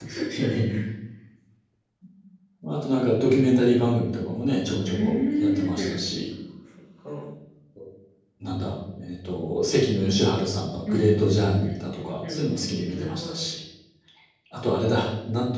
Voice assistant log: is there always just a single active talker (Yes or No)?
No